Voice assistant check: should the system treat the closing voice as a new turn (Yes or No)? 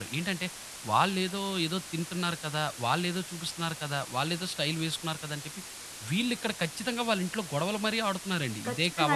Yes